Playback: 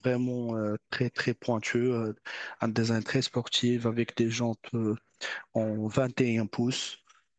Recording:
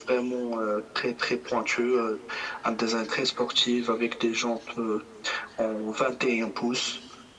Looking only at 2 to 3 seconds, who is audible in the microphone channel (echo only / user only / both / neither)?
echo only